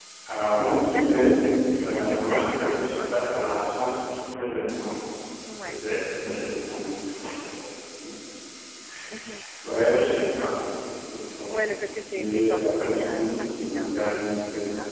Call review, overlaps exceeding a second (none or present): present